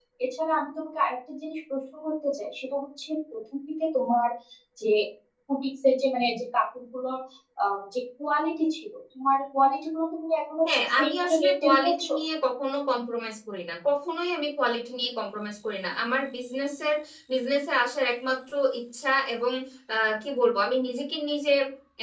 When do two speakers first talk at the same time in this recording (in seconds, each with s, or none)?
10.7 s